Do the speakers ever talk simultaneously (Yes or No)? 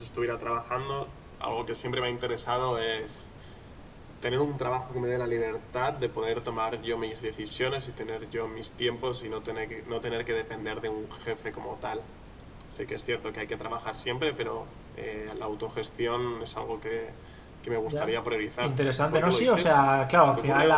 Yes